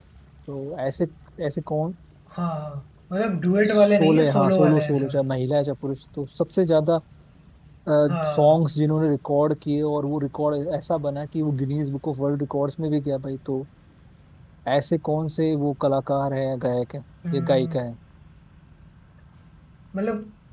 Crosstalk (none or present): present